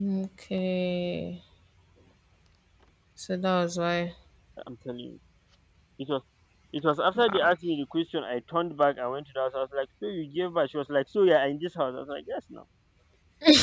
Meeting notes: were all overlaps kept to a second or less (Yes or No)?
Yes